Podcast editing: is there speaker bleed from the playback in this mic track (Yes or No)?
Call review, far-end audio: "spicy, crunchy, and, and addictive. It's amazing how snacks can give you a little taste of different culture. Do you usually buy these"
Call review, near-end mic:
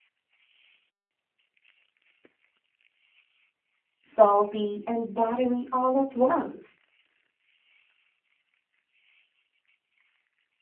No